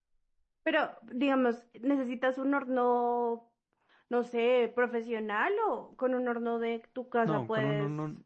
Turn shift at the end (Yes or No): Yes